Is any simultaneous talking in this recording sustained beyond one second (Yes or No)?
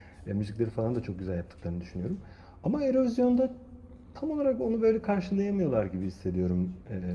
No